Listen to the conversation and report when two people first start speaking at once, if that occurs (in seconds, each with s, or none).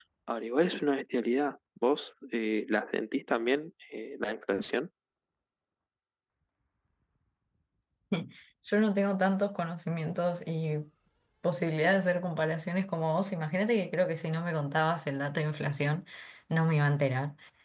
none